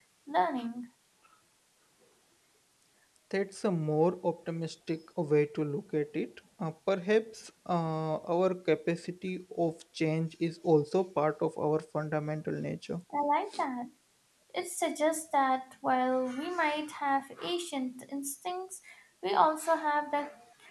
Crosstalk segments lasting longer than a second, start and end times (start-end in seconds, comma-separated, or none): none